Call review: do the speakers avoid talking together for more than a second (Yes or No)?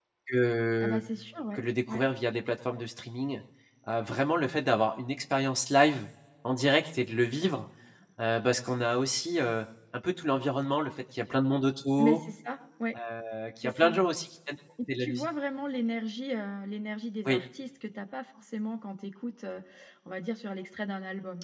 Yes